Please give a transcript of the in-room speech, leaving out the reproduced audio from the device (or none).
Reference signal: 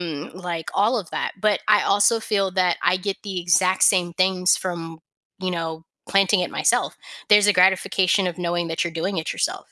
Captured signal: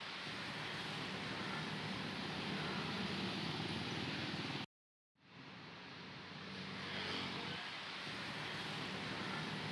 none